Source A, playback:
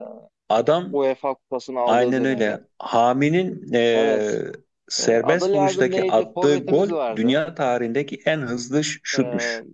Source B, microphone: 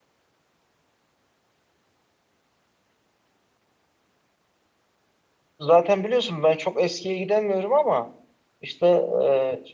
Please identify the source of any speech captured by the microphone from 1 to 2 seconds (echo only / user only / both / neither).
neither